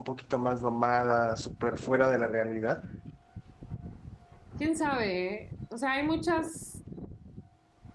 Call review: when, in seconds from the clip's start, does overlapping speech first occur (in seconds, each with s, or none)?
none